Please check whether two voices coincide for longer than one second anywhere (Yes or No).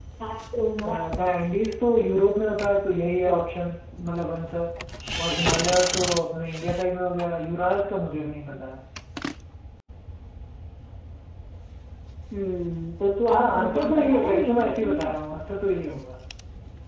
Yes